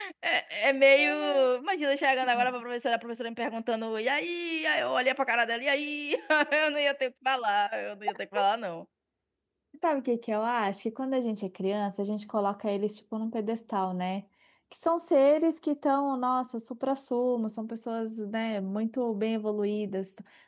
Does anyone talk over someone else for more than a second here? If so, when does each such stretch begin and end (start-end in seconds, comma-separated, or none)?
none